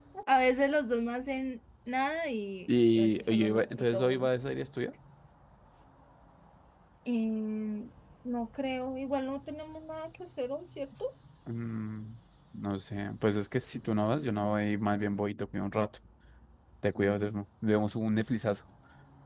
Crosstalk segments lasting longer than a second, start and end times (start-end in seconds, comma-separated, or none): 2.7-4.3